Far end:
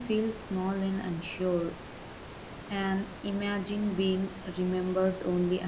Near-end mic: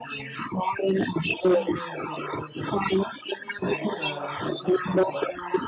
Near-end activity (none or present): present